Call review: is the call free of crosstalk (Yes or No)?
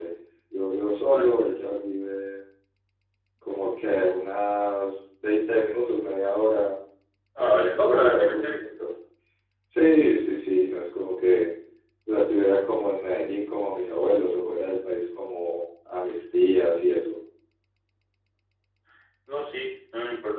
No